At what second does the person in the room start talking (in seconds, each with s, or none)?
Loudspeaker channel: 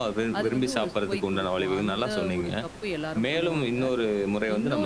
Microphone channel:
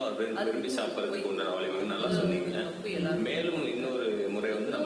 2.0 s